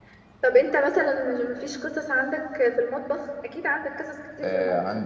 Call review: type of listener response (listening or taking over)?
taking over